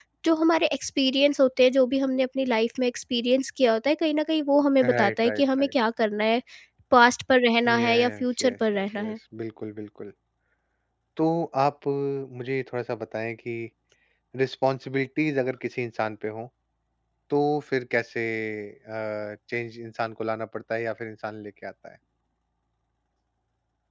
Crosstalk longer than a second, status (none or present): present